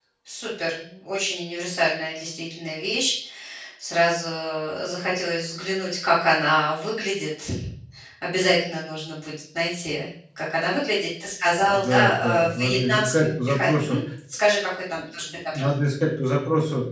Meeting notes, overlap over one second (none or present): present